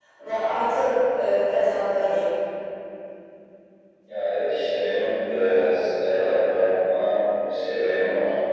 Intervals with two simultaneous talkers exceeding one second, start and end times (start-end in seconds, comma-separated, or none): none